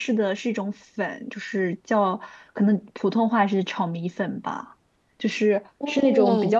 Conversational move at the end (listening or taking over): listening